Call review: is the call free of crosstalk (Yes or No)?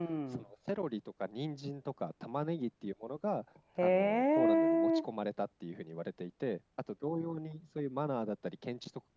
No